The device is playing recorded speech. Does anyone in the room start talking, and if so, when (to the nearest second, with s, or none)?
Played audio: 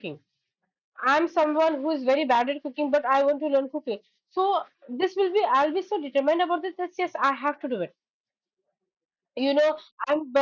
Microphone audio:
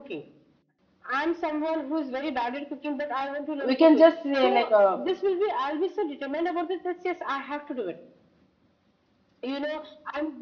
4 s